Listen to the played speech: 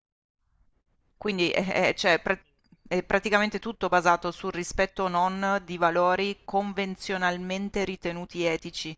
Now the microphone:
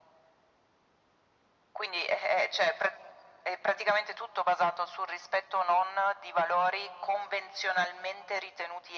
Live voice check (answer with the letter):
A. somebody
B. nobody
B